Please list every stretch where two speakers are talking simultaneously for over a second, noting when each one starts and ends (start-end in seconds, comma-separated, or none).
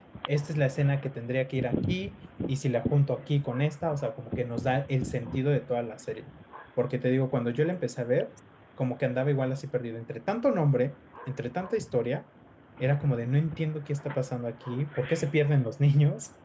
none